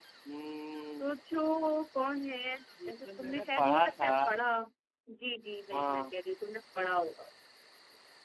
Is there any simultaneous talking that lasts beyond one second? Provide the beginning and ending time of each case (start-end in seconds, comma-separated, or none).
2.9-4.1